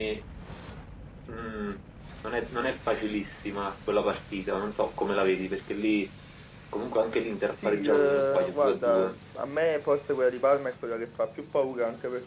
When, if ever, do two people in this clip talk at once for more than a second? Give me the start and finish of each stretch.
7.6-9.1

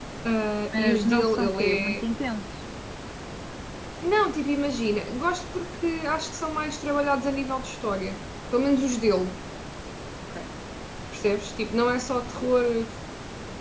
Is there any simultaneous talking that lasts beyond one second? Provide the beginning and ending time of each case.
0.7-2.0

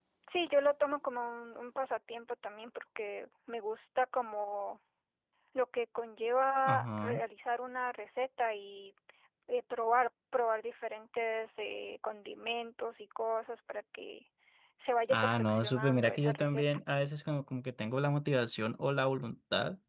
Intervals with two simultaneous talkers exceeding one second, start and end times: 15.1-16.6

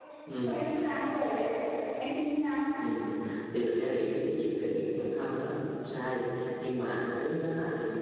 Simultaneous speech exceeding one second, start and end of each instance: none

